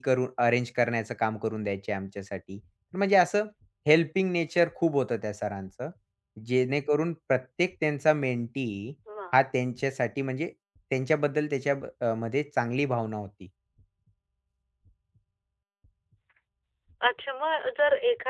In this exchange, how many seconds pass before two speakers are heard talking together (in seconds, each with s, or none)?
none